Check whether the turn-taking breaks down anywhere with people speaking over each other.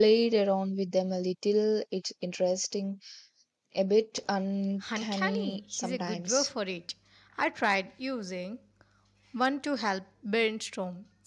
Yes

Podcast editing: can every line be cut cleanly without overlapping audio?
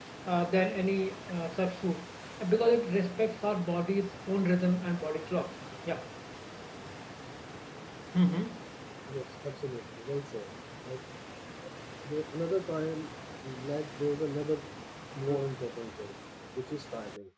Yes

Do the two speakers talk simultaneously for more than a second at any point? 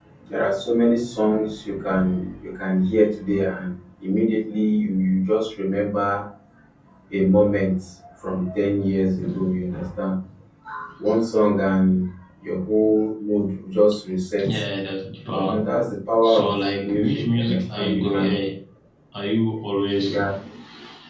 Yes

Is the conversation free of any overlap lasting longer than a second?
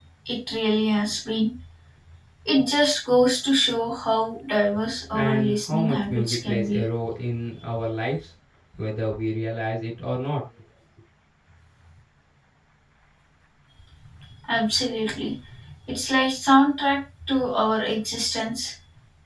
No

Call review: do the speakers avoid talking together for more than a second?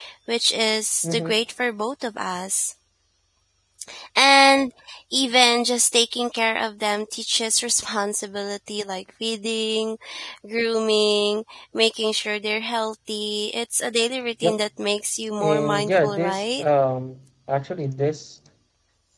No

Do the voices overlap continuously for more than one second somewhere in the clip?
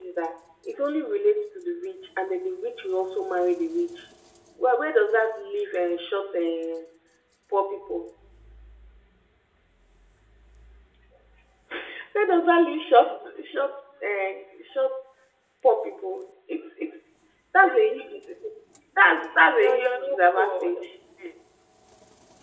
Yes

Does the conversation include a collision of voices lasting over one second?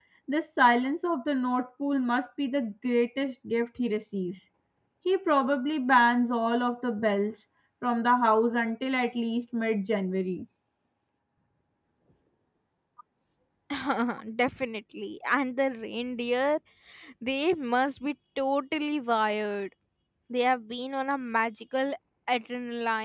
No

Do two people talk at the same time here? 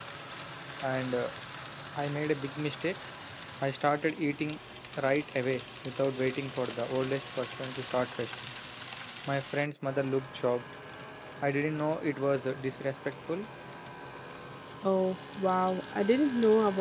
No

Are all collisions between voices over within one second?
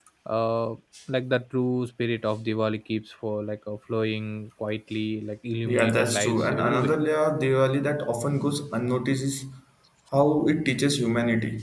No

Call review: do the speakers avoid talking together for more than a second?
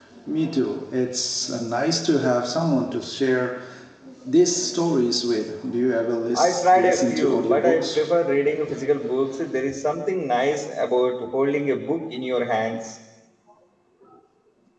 No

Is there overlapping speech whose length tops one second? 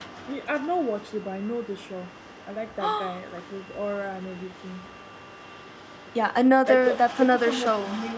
Yes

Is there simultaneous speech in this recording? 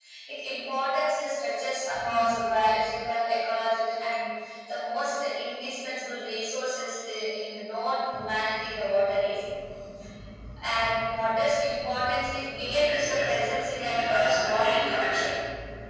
Yes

